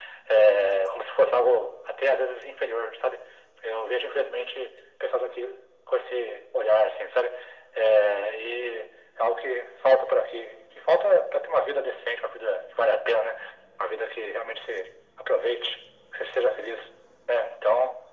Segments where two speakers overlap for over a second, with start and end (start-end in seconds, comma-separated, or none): none